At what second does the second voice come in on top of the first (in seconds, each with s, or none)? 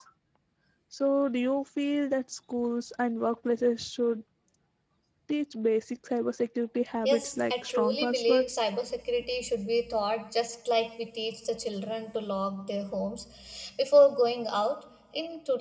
7.0 s